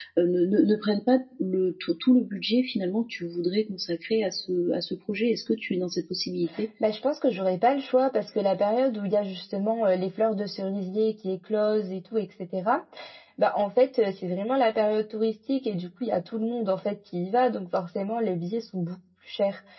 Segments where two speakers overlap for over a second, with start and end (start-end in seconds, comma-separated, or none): none